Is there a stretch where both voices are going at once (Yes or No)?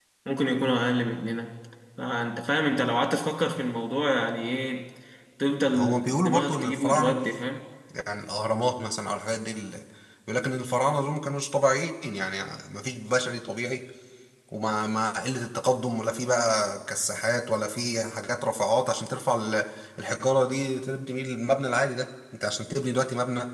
Yes